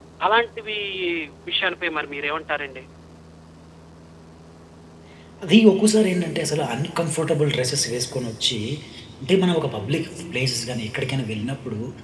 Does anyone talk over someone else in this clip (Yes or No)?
No